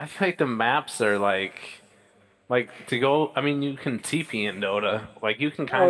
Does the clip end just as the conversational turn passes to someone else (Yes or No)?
Yes